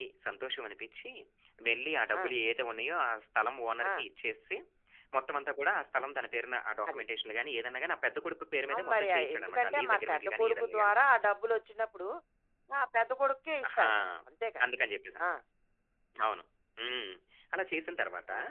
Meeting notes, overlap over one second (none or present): present